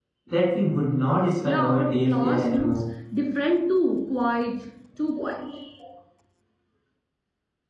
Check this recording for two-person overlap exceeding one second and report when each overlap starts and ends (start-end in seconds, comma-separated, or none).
1.4-2.8